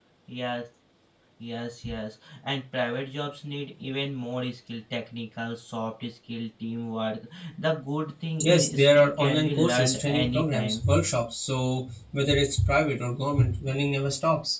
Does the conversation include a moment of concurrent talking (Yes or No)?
Yes